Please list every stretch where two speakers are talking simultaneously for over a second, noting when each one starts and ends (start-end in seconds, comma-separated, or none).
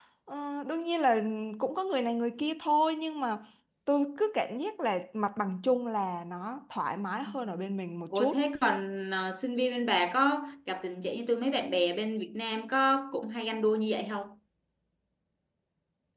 none